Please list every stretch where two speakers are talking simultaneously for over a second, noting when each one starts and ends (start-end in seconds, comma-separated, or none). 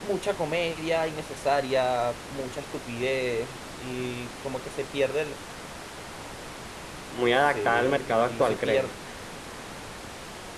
7.4-8.9